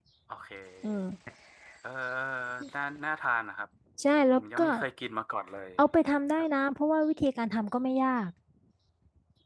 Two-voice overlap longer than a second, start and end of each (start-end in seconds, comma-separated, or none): none